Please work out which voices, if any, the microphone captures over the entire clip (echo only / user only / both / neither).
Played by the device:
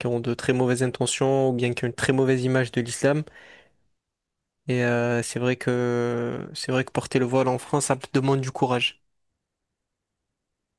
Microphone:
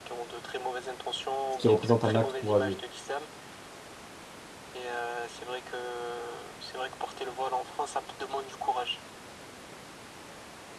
both